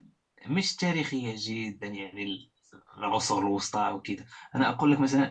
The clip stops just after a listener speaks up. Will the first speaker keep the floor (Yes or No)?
Yes